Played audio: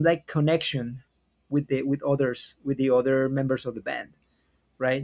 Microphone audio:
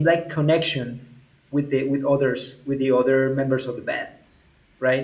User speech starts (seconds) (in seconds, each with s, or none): none